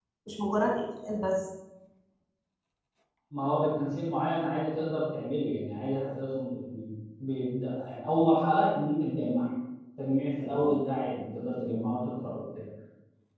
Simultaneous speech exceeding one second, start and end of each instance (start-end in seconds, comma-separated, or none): none